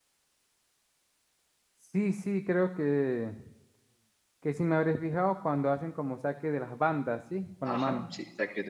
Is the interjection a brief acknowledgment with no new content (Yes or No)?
No